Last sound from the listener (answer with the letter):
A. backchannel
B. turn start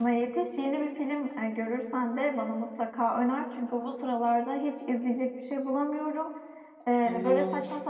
A